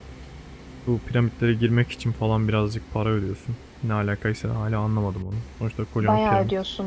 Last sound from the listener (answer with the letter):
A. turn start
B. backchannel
A